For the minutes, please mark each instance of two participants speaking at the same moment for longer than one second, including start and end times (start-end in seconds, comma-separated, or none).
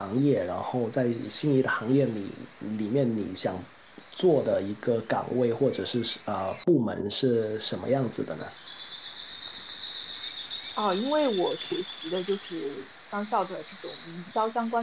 none